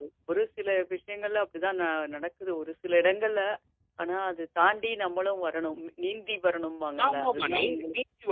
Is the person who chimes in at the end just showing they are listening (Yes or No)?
No